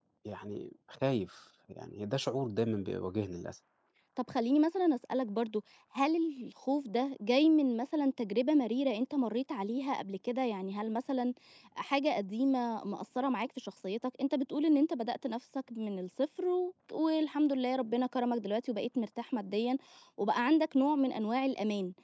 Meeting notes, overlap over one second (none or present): none